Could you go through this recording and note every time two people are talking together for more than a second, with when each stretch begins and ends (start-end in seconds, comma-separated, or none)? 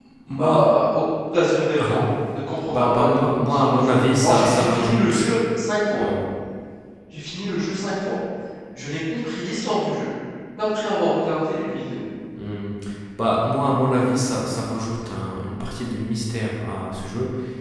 2.6-5.2